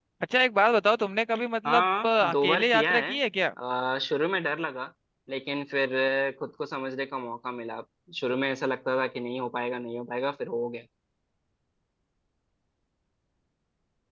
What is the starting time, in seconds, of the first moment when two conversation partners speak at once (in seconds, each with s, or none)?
1.6 s